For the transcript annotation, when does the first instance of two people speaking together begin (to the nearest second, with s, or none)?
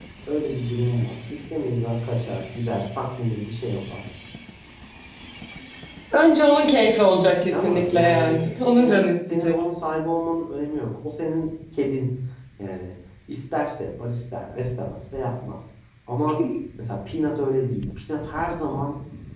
8 s